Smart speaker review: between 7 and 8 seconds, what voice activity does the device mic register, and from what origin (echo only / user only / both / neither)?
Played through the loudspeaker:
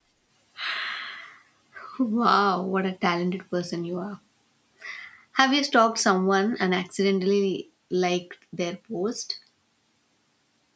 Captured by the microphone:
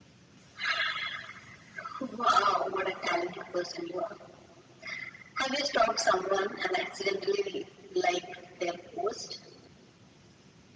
echo only